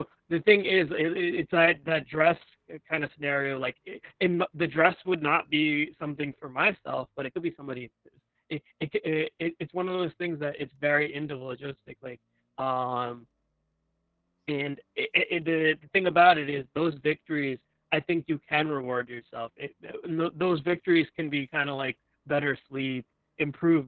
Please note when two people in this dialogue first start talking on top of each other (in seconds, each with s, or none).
none